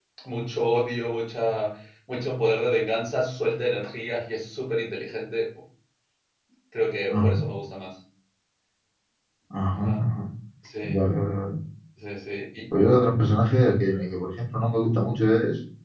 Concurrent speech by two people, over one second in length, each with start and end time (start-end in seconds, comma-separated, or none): none